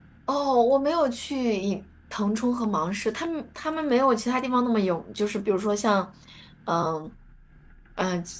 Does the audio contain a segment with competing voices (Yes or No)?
No